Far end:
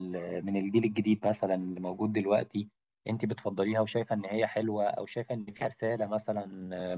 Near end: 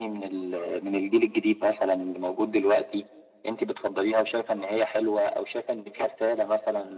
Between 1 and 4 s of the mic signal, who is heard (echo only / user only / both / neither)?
echo only